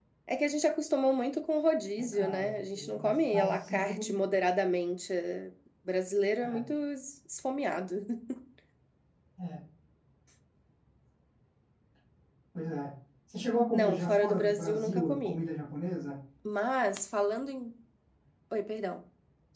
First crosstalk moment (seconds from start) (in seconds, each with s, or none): 2.1 s